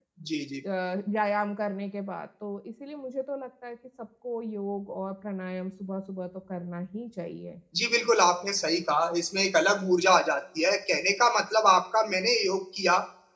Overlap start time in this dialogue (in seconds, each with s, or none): none